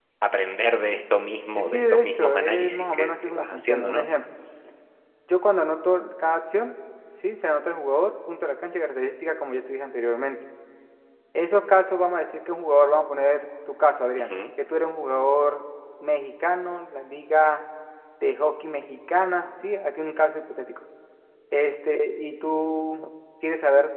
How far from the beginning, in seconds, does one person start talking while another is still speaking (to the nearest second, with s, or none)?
2 s